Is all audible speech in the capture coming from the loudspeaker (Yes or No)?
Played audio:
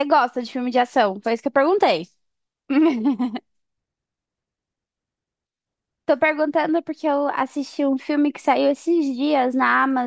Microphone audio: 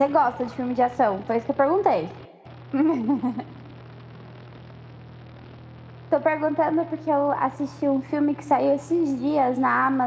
Yes